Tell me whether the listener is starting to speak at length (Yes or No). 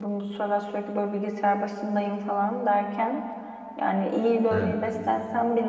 No